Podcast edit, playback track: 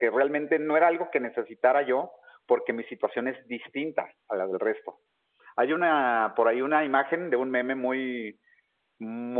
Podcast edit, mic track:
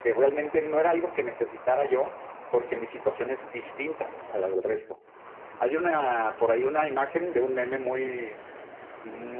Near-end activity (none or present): none